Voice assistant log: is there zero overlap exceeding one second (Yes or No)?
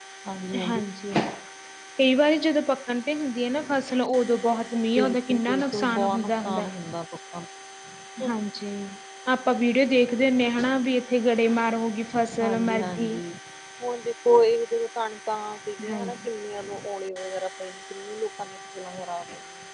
No